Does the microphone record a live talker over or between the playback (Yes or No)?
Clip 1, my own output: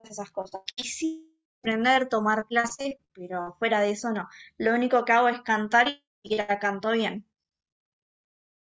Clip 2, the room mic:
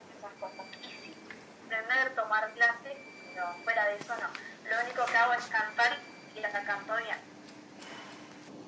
No